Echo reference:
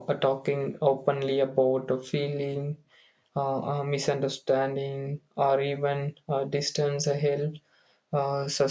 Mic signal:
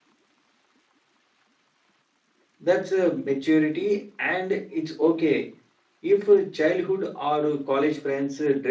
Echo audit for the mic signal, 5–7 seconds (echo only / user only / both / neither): user only